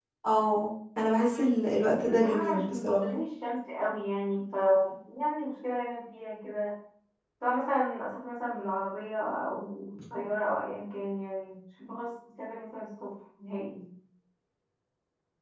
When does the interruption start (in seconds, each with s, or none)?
1.2 s